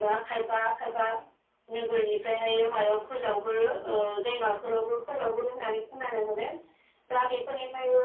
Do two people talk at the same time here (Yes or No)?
No